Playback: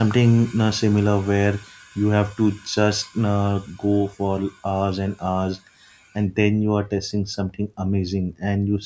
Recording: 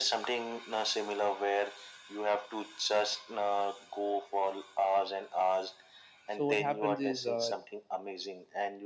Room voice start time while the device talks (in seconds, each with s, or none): 6.4 s